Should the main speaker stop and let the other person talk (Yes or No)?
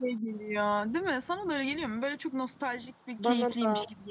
Yes